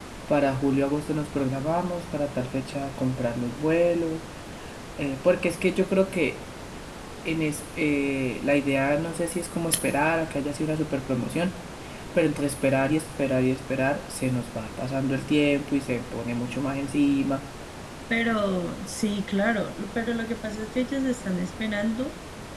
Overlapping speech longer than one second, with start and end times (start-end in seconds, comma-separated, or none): none